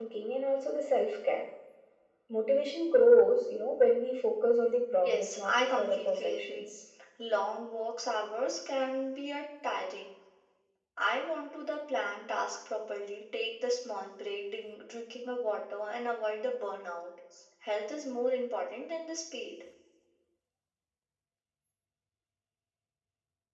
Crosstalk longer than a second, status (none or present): present